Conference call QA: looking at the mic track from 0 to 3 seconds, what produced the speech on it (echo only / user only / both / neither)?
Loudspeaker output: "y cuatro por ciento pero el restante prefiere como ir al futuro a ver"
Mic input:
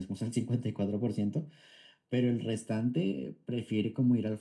echo only